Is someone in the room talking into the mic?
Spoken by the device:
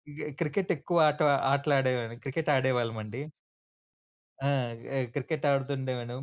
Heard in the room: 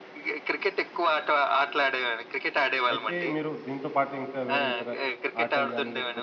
Yes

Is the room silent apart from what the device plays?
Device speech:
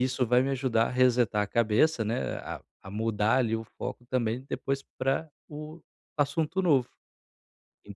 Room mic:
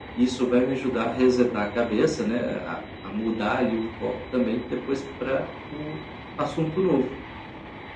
Yes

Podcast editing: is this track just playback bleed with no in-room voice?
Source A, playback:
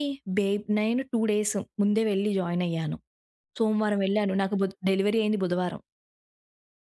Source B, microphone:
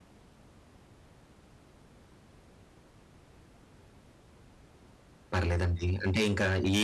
No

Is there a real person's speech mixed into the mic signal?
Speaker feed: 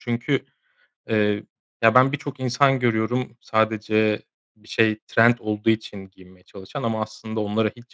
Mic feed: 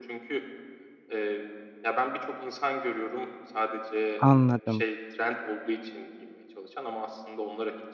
Yes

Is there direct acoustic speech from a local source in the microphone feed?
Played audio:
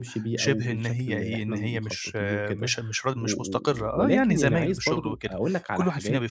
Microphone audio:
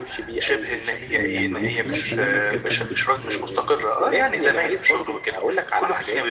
Yes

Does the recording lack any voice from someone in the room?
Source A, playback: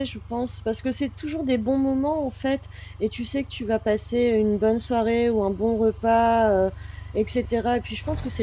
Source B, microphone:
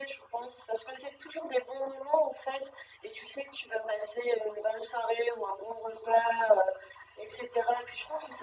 Yes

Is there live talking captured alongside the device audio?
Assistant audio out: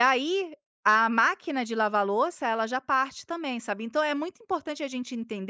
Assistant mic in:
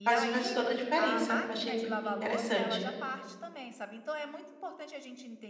Yes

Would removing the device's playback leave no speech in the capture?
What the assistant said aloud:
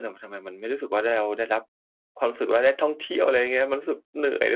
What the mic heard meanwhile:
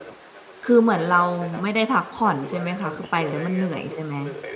No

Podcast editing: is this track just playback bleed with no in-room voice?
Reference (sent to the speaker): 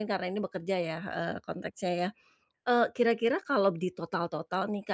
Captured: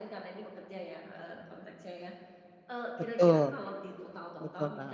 No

